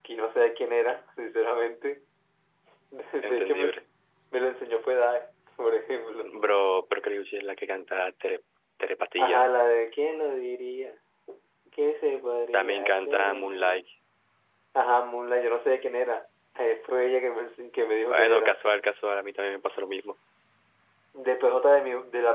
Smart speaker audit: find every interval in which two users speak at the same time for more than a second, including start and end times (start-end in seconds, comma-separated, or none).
12.5-13.8